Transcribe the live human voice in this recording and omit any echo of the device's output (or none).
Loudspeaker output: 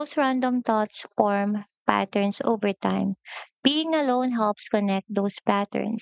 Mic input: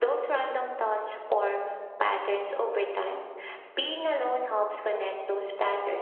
none